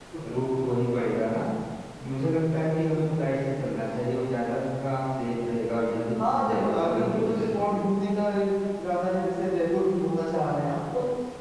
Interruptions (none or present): present